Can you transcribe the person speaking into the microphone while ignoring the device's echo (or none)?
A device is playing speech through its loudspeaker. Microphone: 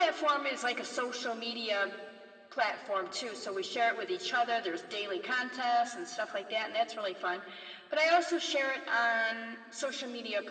none